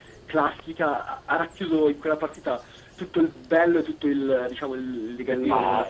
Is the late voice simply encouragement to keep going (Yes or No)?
Yes